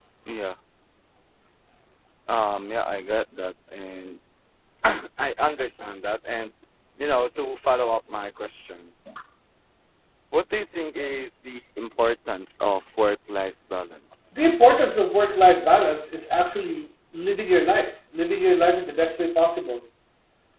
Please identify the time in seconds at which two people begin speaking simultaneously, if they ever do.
none

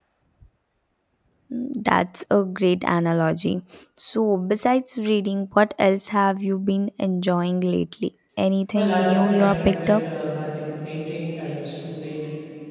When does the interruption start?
8.7 s

